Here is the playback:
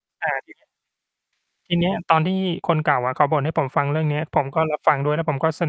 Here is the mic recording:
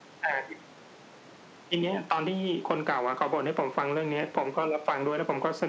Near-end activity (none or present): none